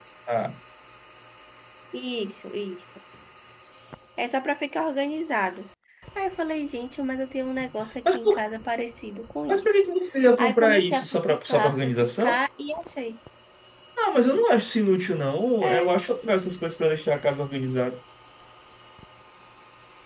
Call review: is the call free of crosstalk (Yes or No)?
No